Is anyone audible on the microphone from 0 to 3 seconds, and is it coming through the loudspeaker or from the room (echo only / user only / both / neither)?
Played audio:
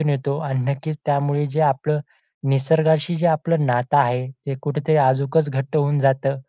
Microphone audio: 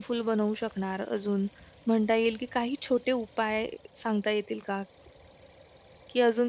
user only